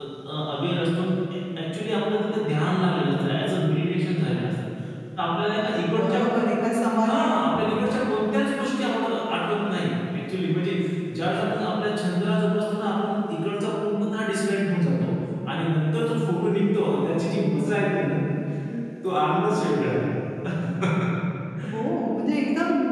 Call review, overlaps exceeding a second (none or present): none